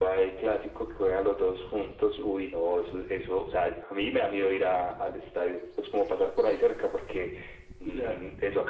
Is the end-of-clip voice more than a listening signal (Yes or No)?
No